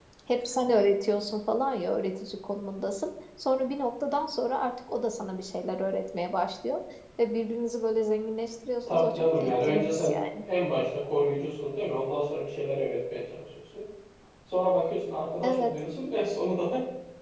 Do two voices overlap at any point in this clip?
Yes, from 8.9 s

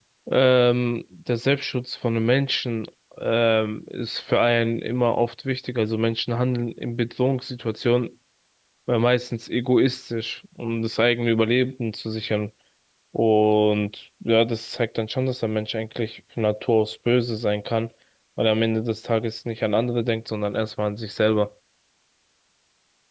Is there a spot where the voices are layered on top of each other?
No

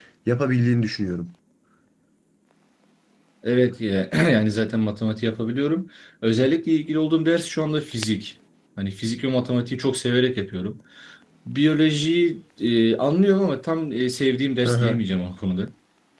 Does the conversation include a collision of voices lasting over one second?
No

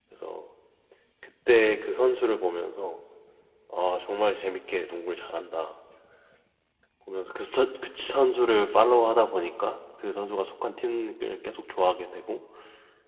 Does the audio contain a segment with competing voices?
No

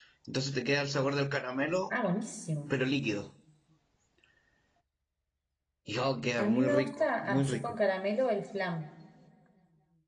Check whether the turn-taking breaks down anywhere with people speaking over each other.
Yes, from 6.4 s

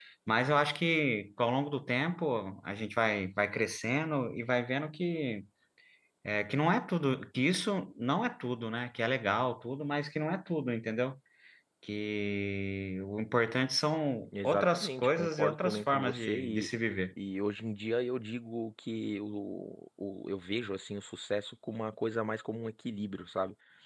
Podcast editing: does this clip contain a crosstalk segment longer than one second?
Yes, from 14.2 s

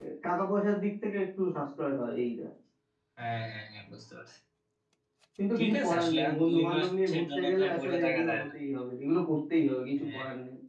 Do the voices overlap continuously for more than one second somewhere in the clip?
Yes, from 5.6 s

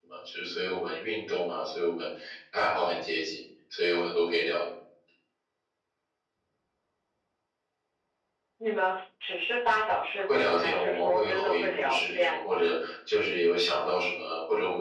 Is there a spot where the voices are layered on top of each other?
Yes, from 10.2 s

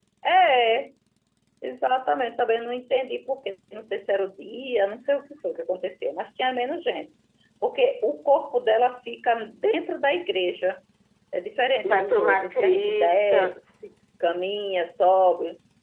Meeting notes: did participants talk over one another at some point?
Yes, from 11.9 s

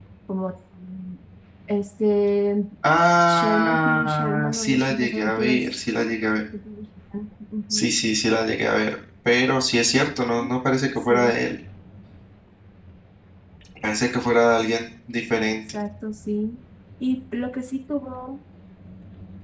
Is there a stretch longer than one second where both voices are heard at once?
Yes, from 3.3 s

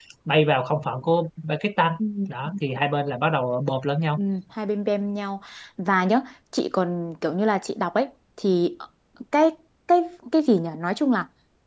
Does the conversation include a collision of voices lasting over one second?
No

